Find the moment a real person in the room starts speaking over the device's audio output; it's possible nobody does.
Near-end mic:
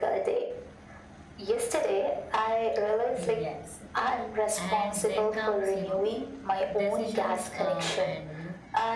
3.1 s

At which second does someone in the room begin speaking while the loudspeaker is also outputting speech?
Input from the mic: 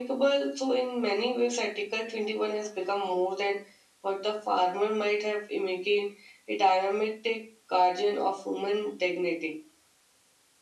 none

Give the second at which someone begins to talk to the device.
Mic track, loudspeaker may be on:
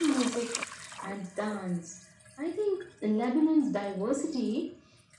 none

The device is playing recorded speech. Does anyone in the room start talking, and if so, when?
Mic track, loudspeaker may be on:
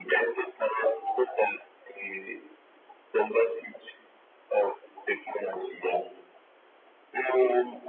none

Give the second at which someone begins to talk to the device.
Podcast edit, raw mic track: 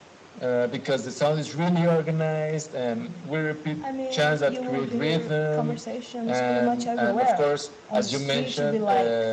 3.8 s

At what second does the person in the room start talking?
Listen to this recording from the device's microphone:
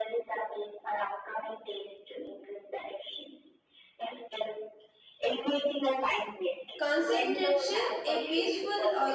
6.8 s

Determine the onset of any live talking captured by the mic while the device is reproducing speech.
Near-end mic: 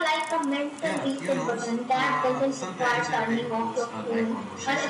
0.8 s

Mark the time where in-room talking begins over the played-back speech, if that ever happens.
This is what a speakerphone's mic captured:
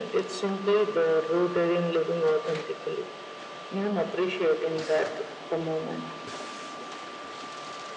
none

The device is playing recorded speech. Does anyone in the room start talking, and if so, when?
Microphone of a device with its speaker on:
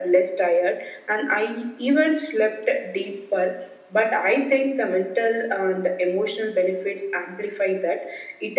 none

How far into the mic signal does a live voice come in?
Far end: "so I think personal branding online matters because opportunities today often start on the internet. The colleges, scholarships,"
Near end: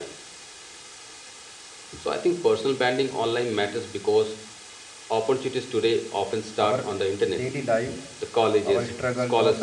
6.6 s

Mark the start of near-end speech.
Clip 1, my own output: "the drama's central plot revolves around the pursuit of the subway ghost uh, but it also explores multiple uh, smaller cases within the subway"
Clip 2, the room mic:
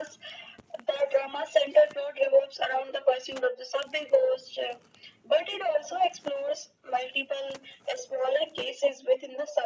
none

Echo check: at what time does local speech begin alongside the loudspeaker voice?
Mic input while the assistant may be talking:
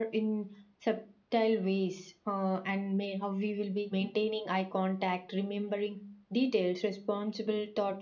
none

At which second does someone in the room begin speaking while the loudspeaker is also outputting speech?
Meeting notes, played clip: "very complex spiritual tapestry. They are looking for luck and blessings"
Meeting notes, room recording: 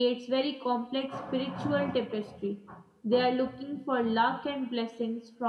none

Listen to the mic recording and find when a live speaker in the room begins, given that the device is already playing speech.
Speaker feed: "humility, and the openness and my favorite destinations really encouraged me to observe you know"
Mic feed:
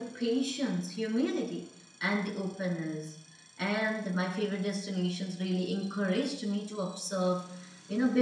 none

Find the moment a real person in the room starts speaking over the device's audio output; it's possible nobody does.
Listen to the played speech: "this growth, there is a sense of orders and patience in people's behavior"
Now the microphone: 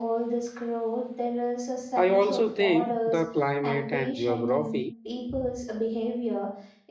1.9 s

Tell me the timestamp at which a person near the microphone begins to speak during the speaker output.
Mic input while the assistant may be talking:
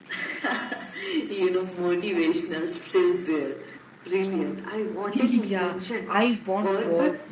5.1 s

